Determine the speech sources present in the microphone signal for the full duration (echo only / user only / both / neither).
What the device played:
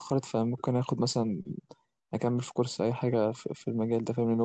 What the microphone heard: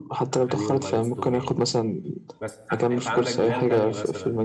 both